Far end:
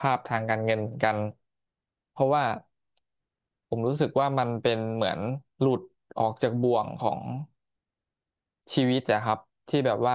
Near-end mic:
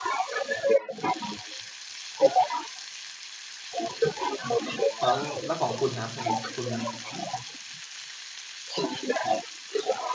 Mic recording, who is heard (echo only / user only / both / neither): both